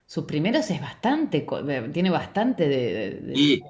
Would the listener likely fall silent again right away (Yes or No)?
No